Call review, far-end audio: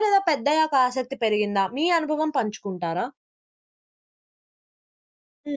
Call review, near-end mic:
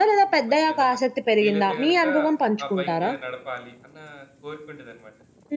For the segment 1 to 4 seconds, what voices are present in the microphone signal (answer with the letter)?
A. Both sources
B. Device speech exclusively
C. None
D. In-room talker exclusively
A